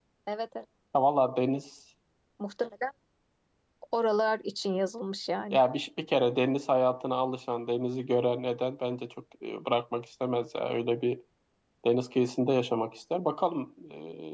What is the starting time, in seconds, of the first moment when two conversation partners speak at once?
none

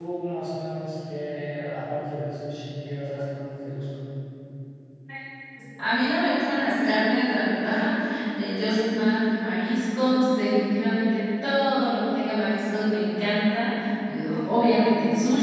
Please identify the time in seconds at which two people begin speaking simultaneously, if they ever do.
none

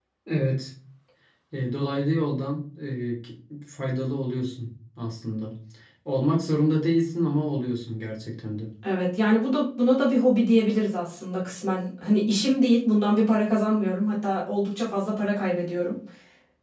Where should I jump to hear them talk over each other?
none

